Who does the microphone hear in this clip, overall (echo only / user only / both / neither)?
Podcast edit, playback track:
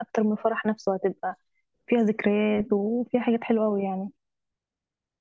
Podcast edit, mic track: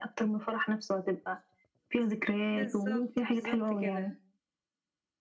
both